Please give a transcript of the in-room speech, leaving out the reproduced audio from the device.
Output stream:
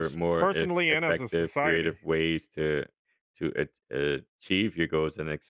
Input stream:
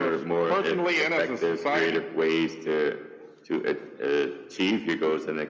none

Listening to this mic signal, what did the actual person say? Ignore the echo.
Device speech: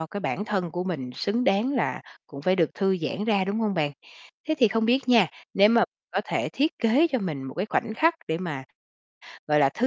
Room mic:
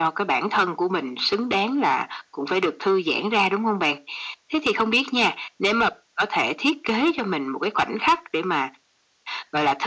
none

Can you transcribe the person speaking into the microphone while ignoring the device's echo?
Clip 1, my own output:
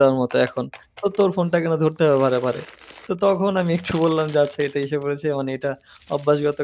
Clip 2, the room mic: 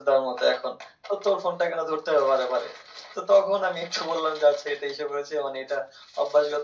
none

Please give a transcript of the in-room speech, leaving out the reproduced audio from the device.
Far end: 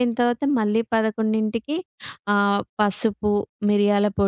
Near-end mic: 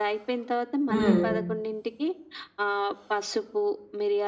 హ్మ్.

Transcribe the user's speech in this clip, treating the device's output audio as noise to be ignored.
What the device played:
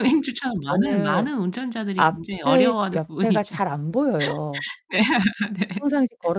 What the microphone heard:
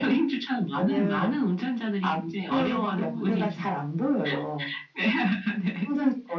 아 네.

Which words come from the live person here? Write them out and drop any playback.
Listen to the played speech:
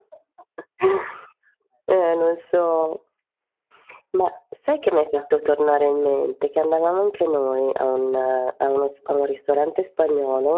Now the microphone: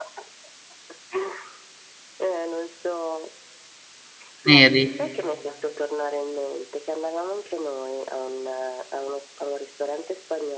Neri.

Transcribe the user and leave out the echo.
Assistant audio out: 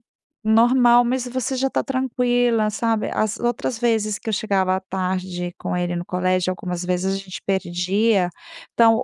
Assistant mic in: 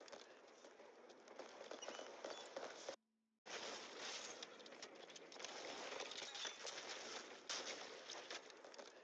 none

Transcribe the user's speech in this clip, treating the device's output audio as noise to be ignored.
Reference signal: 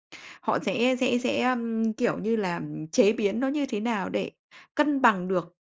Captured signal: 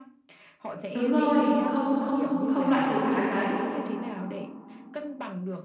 Đúng rồi. Không không không loại trừ khả năng đấy,

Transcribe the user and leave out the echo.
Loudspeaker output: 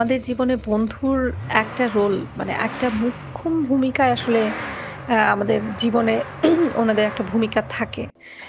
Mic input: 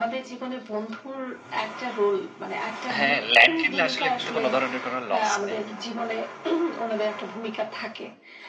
হ্যাঁ, ল্যান্ড কিনলে আসলে কিন্তু কোনো ধরনের কোনো লস নেই।

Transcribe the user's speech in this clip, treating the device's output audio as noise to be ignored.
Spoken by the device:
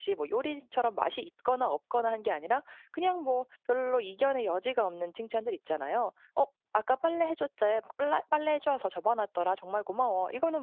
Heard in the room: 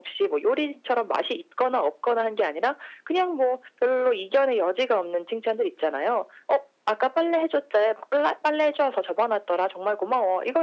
none

